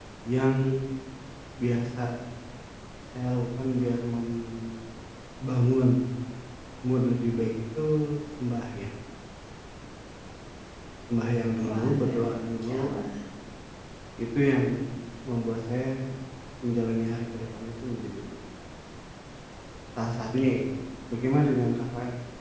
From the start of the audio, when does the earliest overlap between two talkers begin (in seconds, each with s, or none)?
11.6 s